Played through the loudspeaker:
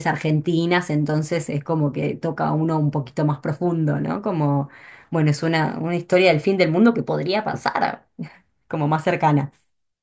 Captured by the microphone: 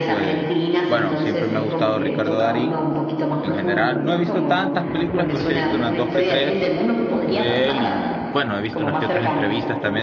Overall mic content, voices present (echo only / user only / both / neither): both